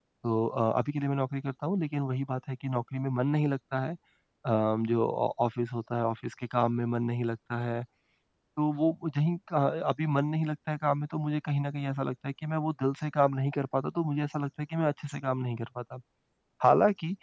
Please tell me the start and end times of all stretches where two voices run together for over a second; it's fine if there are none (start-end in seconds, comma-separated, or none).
none